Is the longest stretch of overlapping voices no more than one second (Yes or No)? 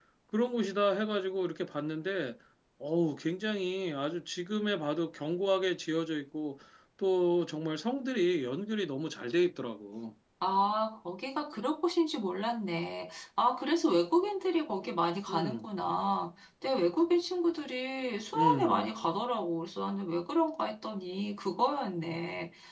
Yes